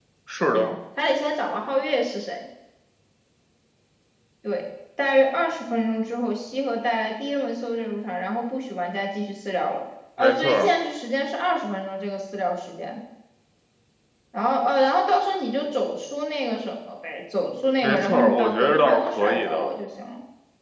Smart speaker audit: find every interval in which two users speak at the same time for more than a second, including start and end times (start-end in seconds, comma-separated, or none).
17.8-19.7